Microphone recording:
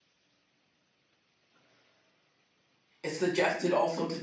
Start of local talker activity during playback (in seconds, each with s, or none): 3.0 s